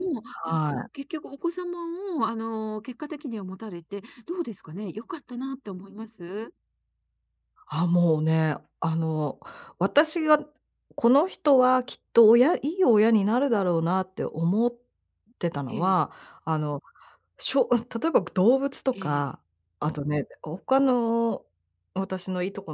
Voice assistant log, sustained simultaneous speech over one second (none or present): none